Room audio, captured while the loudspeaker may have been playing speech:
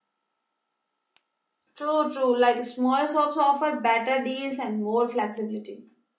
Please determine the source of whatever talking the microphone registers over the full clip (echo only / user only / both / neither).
user only